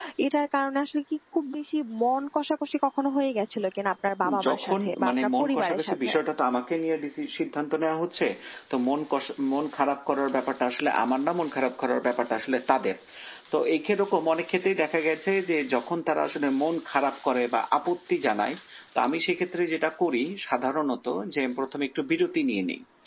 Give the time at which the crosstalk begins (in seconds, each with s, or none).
4.2 s